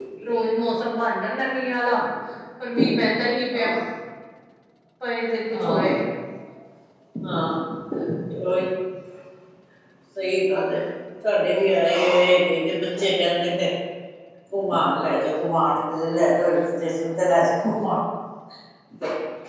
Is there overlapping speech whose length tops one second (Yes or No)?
No